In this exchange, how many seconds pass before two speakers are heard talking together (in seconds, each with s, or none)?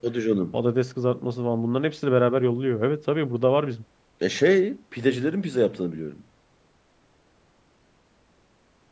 none